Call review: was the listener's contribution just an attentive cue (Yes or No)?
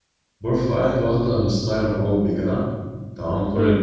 Yes